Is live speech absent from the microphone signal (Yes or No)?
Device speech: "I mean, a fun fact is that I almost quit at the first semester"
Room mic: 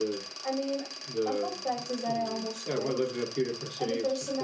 No